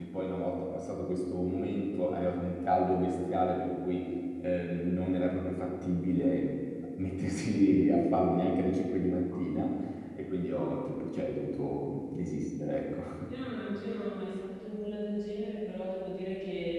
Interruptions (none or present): none